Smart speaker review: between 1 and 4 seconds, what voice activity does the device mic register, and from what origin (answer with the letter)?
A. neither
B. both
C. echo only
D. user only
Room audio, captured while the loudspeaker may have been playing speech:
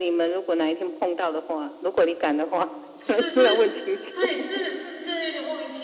B